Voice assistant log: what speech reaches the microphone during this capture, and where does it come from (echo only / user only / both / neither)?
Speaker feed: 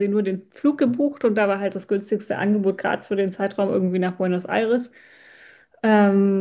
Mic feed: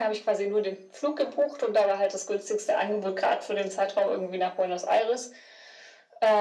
echo only